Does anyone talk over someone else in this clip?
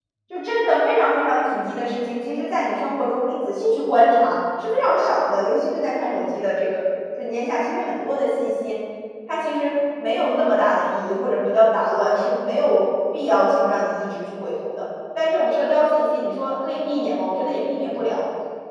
No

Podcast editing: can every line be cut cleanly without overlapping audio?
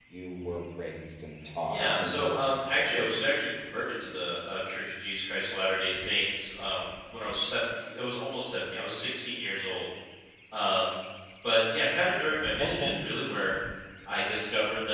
No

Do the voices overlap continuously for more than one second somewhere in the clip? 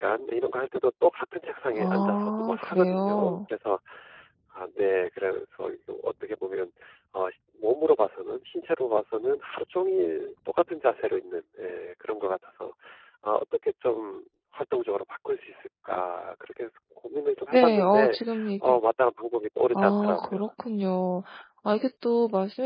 Yes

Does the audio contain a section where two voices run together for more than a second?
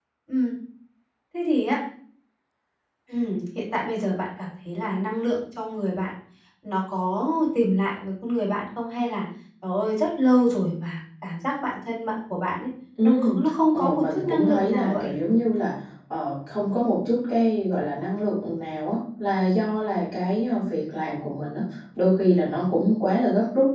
Yes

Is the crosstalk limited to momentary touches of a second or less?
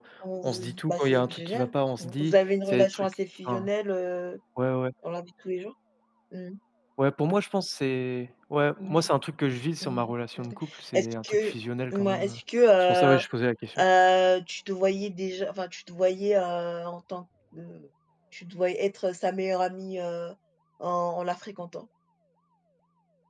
No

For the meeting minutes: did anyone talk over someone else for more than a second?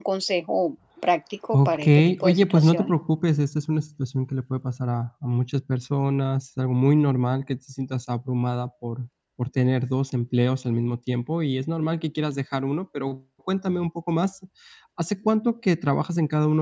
Yes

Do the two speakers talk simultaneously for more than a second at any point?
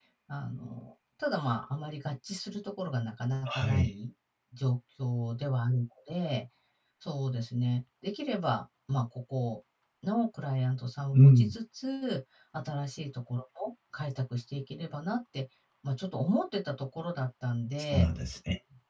No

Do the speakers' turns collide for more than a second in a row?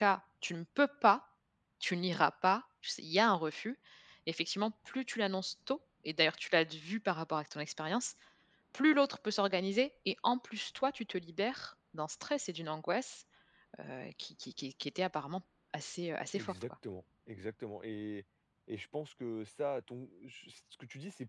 No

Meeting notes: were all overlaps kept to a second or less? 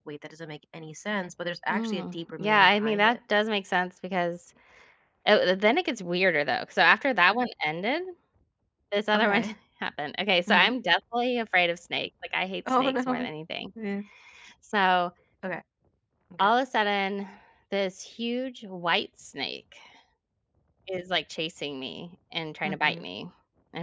No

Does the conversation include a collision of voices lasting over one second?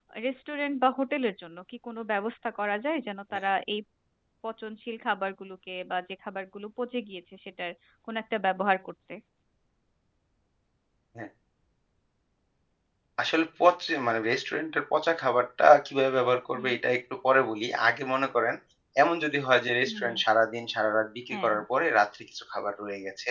No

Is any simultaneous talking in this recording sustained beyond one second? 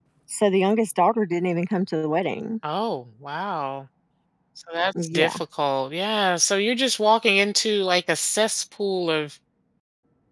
No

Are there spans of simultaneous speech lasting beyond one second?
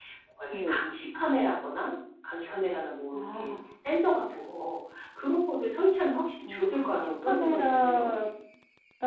Yes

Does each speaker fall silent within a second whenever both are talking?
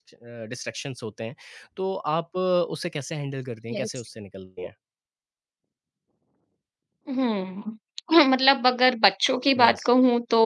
Yes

